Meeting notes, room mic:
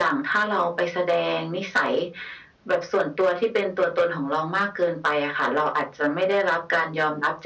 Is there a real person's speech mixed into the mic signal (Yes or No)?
No